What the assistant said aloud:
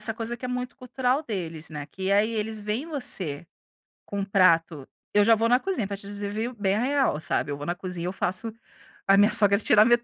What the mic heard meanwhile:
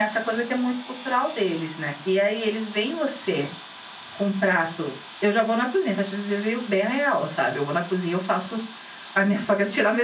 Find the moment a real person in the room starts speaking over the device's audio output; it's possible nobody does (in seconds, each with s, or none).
none